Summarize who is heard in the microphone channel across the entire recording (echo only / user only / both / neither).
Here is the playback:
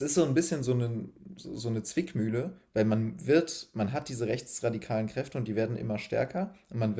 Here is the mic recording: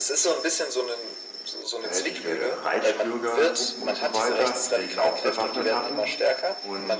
both